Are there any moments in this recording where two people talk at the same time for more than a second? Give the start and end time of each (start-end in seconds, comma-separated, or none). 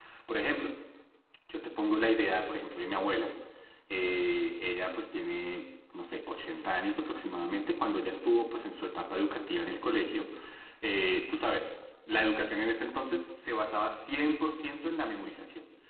none